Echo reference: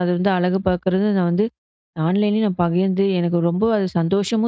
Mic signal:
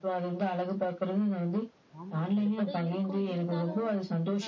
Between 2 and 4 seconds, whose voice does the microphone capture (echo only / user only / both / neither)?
both